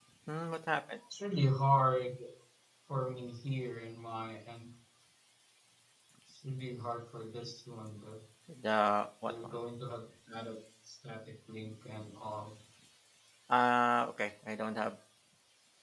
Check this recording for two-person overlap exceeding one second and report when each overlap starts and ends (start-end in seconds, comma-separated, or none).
none